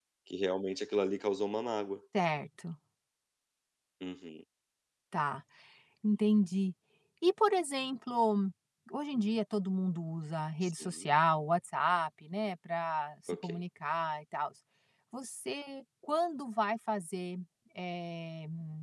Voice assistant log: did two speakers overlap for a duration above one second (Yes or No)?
No